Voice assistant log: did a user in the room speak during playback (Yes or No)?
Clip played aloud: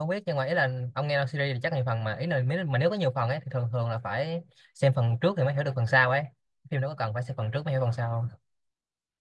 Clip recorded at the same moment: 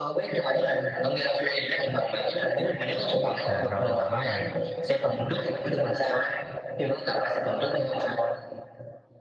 Yes